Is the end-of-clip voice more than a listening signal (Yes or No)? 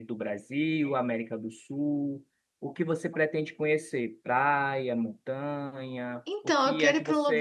Yes